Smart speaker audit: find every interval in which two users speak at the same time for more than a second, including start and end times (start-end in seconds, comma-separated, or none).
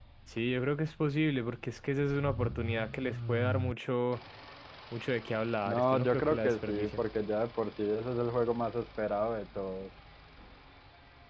5.7-7.0